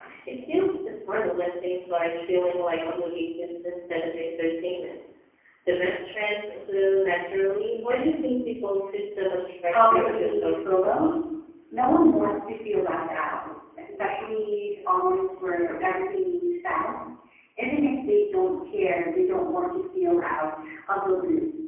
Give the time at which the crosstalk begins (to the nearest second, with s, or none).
10 s